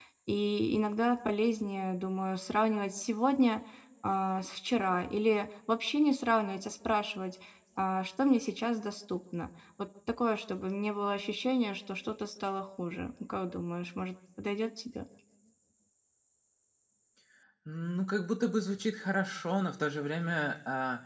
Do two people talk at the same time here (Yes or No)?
No